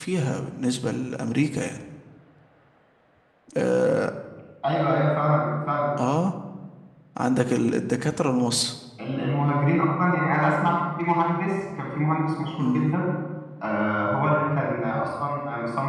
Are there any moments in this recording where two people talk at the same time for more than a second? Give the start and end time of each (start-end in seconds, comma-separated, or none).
none